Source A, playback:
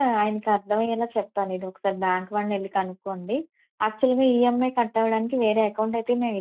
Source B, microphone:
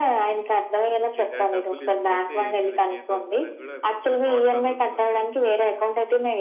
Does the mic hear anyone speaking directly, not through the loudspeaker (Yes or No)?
Yes